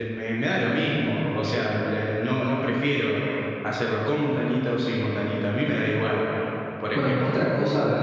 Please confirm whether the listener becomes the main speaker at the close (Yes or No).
Yes